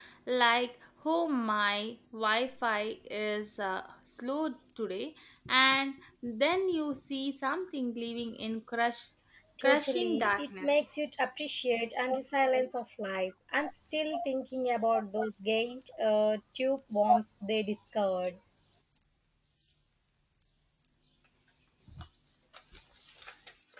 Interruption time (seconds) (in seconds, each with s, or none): 9.6 s